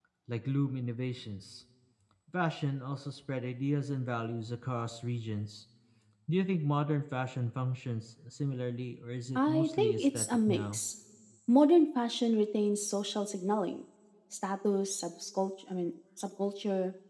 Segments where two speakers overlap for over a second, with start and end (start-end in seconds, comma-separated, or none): 9.3-10.8